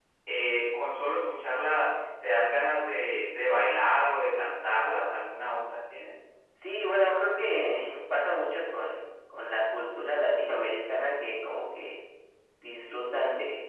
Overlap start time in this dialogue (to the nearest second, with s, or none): none